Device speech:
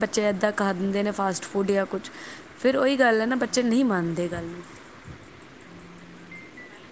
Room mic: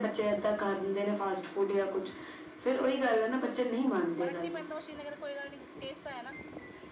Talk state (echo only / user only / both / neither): both